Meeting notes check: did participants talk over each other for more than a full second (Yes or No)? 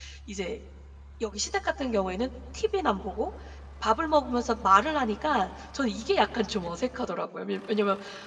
No